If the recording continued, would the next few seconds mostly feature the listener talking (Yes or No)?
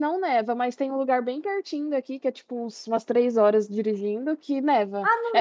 Yes